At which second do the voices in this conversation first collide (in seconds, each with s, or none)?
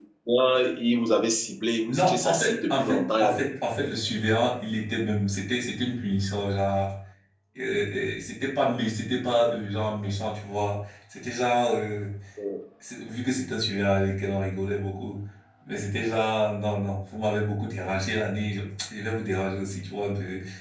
1.9 s